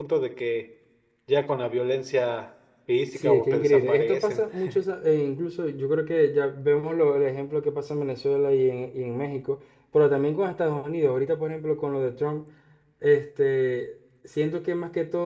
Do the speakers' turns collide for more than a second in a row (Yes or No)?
Yes